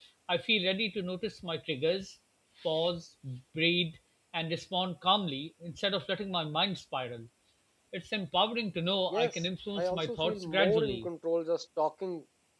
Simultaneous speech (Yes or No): Yes